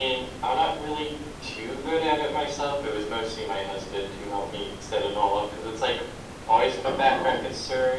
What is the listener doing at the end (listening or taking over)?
listening